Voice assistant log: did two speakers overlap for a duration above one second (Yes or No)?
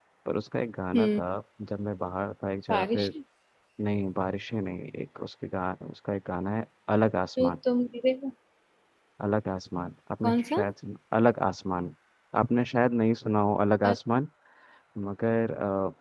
No